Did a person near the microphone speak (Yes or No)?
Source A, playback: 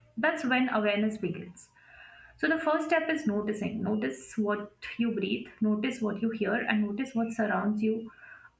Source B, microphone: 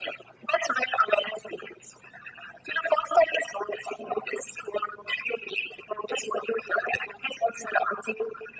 No